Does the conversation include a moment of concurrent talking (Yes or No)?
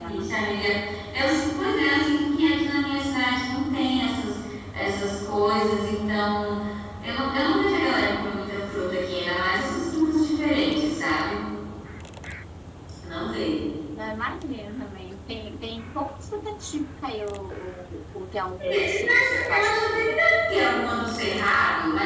Yes